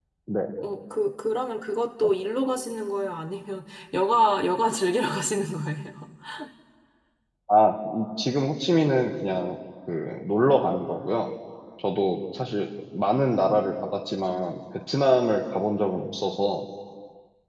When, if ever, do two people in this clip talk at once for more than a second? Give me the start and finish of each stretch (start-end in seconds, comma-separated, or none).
none